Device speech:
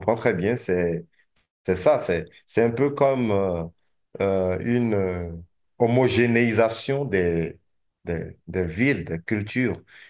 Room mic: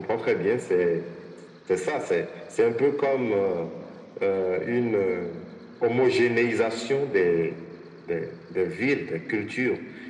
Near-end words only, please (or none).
none